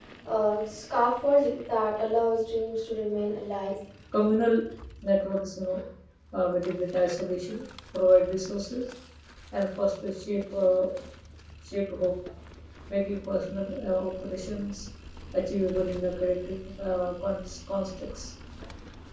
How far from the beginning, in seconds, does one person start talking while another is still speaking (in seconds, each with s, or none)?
none